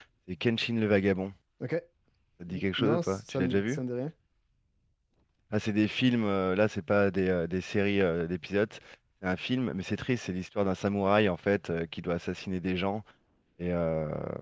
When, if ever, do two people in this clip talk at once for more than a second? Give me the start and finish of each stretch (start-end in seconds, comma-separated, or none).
2.5-3.8